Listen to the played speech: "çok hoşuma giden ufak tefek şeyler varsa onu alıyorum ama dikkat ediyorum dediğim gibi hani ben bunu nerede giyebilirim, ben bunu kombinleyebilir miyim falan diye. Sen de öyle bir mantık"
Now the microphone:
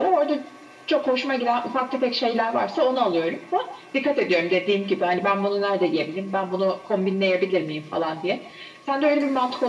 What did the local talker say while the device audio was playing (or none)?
none